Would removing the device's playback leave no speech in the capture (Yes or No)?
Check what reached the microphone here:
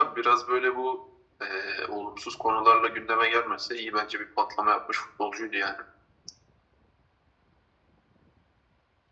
Yes